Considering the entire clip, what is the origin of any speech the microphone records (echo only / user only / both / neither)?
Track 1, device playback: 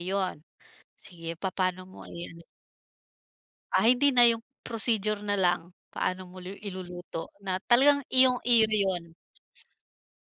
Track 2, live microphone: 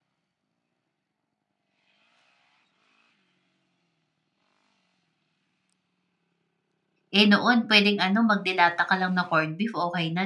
user only